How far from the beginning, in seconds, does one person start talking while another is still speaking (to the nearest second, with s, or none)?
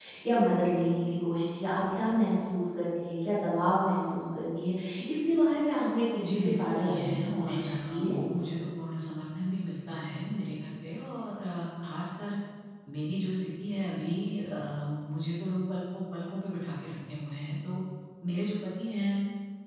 6 s